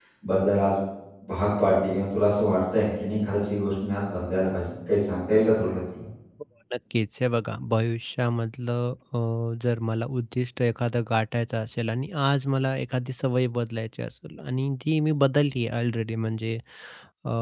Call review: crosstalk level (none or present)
none